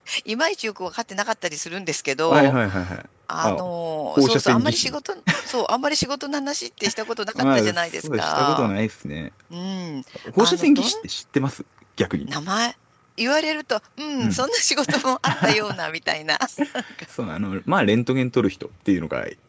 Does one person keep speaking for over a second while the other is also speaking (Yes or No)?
Yes